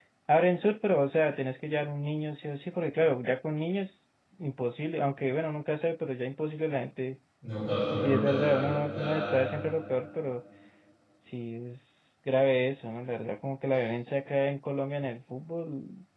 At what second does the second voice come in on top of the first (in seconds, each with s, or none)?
8.0 s